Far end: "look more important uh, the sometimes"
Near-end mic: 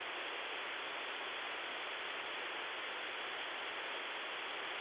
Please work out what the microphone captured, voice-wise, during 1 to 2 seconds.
neither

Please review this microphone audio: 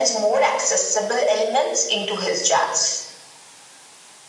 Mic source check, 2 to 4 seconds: echo only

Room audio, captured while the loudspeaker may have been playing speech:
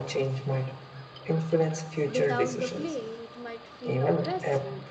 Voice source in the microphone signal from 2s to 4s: both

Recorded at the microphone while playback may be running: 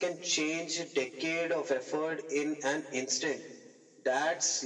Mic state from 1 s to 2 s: echo only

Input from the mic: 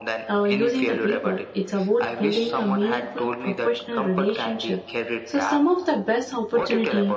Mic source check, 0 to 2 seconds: both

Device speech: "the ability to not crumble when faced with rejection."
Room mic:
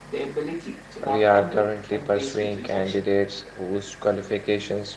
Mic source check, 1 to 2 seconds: both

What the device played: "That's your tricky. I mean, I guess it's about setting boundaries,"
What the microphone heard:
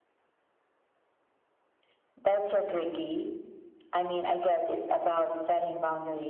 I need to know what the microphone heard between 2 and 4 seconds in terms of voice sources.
echo only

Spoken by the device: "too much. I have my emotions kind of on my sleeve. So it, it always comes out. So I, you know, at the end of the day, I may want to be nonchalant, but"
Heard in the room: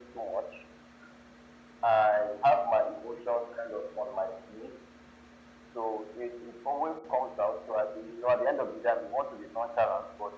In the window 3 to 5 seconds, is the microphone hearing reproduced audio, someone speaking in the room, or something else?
echo only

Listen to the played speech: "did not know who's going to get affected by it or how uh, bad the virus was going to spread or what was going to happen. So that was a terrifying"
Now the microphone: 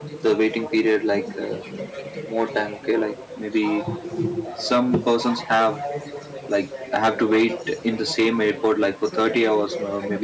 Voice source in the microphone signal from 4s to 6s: both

